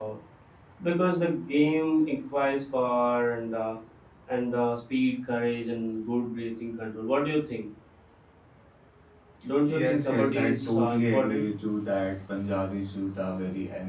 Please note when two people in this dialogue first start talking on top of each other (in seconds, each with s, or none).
9.7 s